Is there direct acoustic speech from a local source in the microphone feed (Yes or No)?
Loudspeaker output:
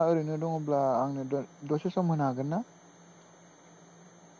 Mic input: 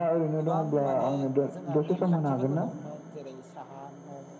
Yes